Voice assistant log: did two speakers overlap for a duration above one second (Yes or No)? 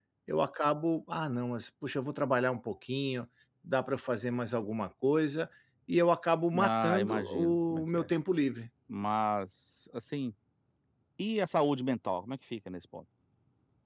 Yes